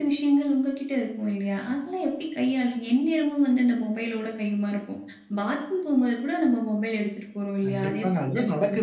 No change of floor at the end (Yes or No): No